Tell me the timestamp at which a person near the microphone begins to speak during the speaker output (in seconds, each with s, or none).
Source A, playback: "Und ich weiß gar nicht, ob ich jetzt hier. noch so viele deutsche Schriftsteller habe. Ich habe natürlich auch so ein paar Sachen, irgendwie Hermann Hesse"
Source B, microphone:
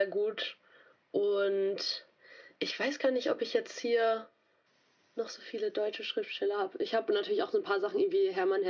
none